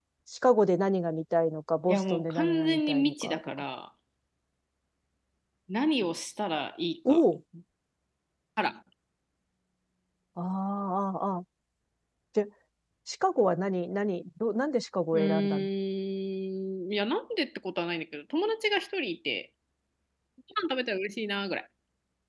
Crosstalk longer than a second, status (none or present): present